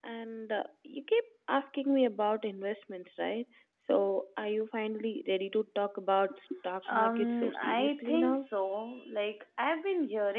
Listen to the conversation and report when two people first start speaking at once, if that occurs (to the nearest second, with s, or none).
7 s